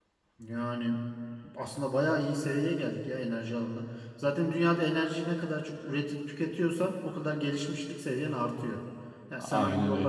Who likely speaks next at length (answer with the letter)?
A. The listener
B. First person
B